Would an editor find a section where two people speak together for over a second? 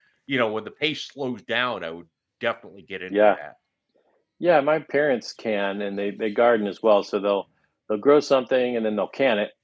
No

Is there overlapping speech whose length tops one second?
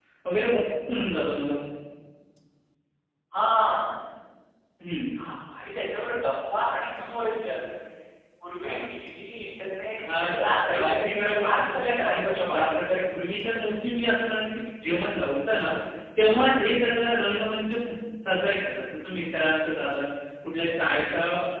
Yes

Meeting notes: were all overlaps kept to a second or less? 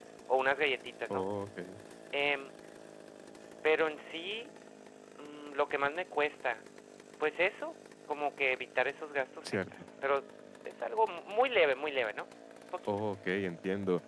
Yes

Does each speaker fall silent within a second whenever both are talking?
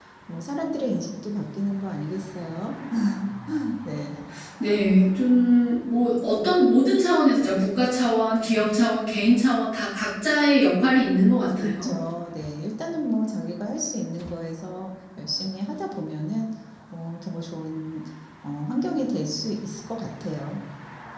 Yes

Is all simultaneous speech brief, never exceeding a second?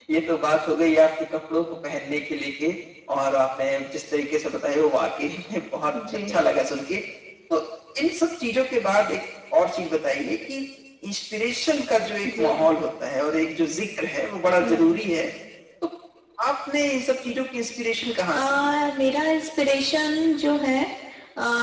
Yes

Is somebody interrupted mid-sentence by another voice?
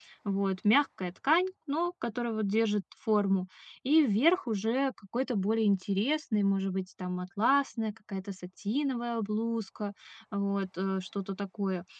No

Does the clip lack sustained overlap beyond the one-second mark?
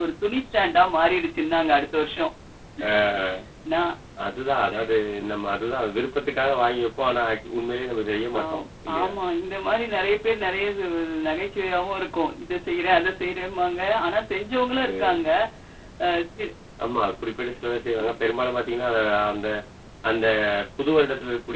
Yes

